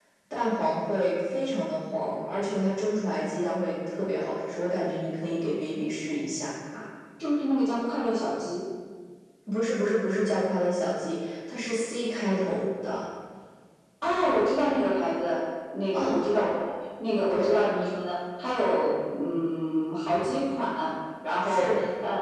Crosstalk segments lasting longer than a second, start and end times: none

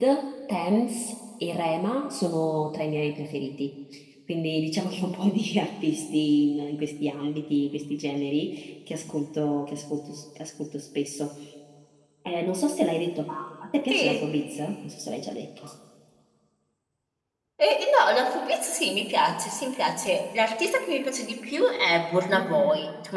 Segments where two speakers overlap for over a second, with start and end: none

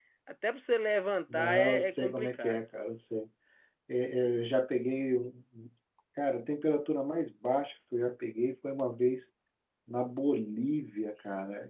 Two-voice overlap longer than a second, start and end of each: 1.3-2.6

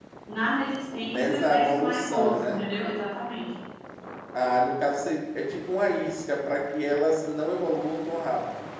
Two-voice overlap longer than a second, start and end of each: 1.1-2.7

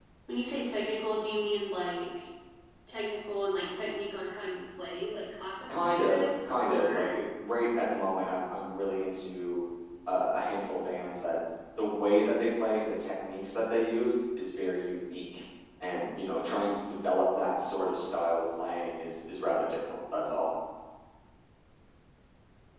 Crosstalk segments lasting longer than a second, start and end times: 5.7-7.2

